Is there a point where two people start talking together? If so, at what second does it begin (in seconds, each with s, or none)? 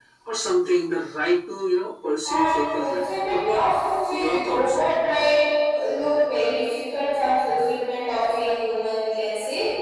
2.2 s